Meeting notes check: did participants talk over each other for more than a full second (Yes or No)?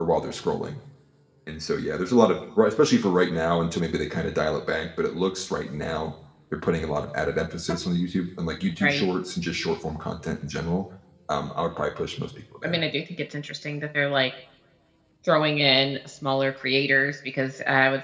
No